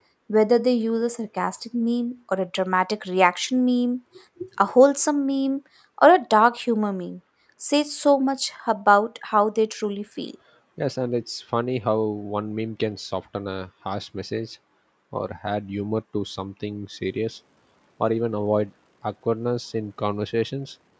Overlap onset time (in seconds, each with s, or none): none